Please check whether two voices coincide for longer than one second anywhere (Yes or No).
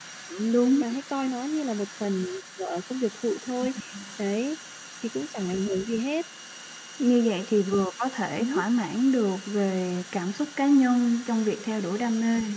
No